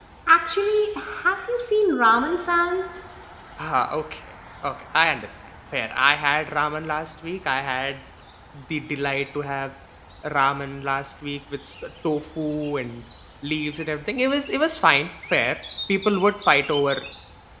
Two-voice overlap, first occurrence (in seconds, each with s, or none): none